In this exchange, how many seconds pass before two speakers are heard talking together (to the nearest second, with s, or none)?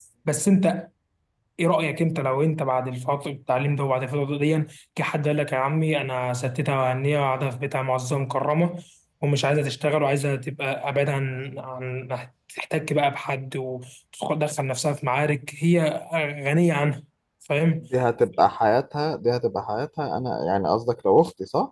none